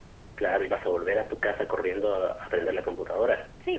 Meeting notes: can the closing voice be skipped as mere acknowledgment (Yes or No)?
No